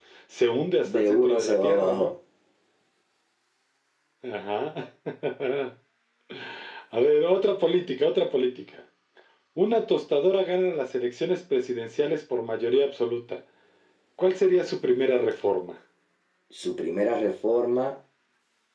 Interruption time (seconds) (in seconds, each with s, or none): 0.9 s